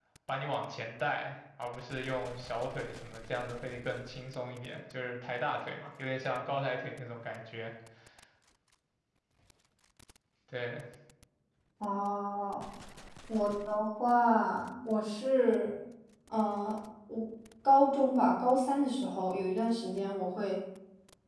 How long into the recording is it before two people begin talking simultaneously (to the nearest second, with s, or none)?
none